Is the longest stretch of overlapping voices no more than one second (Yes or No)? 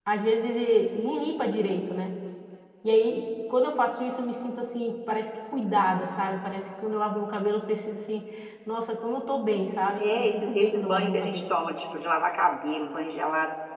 No